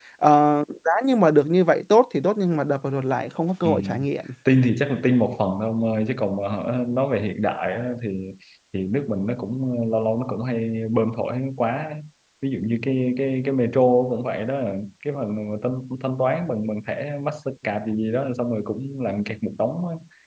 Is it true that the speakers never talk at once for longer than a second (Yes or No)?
Yes